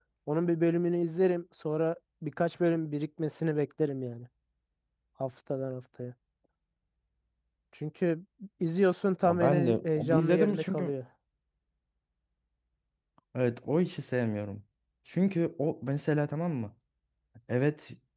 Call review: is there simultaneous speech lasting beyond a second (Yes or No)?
Yes